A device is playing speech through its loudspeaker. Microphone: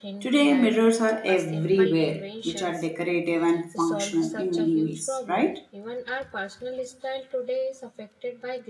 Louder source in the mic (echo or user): user